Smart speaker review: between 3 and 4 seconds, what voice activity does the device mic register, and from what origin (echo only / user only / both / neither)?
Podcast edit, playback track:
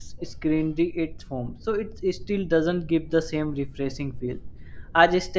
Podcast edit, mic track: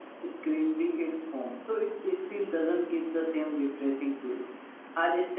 echo only